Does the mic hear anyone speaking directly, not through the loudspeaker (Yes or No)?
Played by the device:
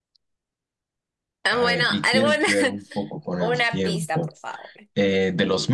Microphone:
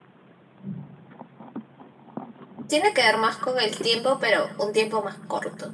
Yes